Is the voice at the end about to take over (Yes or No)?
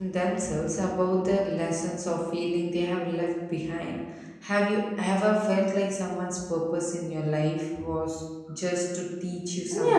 Yes